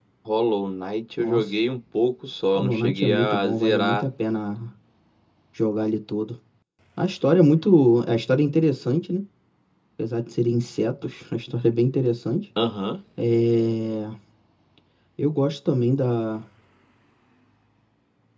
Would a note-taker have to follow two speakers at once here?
Yes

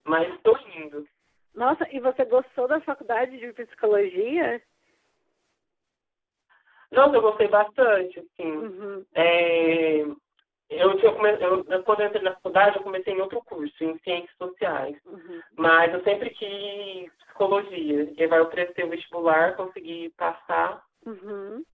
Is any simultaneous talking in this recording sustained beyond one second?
No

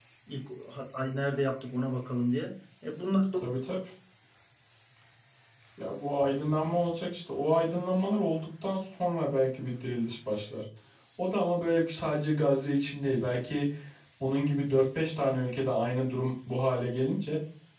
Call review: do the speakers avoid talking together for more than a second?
Yes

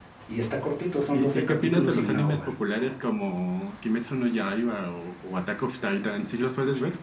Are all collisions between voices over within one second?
No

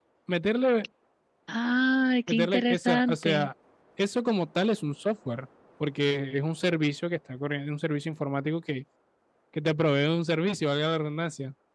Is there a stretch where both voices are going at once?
Yes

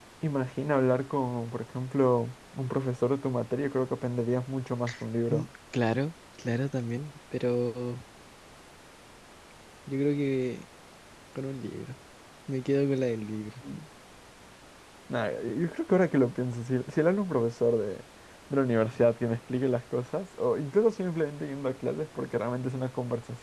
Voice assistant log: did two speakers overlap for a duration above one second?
No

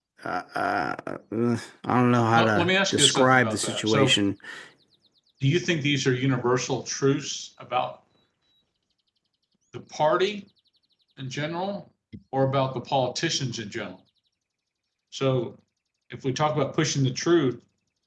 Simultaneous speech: Yes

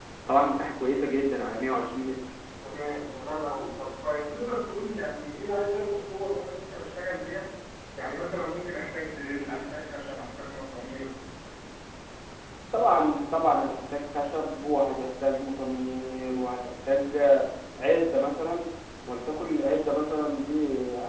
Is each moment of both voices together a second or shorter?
Yes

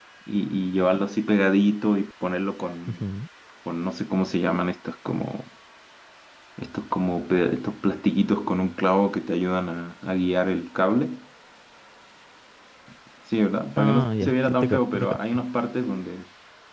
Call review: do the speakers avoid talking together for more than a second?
No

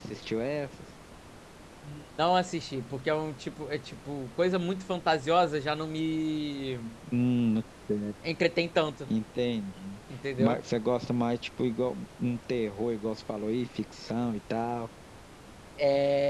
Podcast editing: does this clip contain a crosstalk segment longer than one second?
No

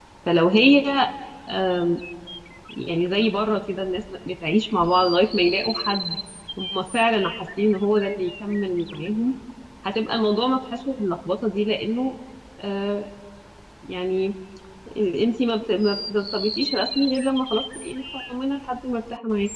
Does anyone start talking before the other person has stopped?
No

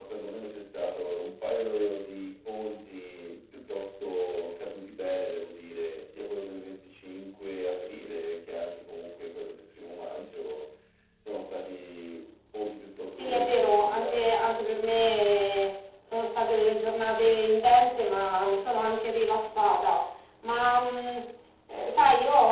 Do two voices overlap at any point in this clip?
Yes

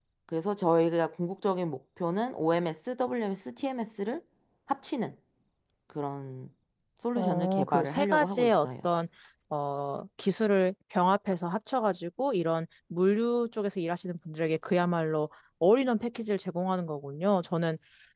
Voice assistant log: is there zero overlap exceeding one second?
No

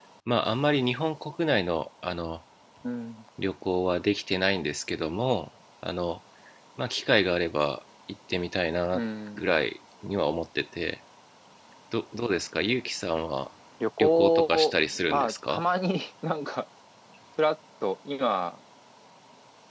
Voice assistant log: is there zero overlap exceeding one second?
No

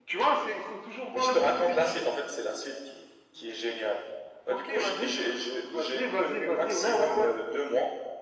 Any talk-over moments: Yes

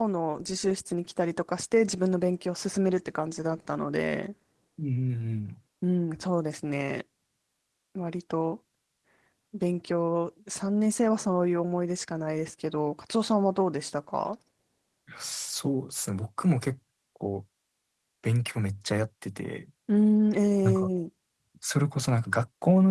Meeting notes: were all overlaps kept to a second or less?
Yes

